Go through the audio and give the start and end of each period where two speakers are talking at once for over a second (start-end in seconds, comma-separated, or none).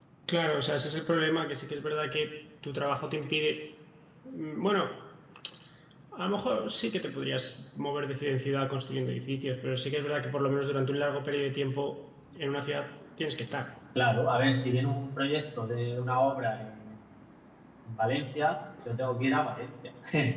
none